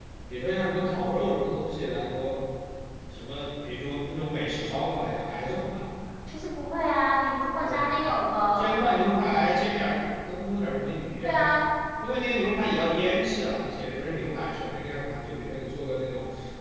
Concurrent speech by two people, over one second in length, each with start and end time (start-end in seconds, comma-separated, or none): none